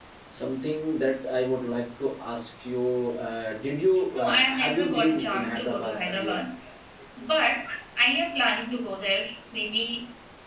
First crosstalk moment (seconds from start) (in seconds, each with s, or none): 4.1 s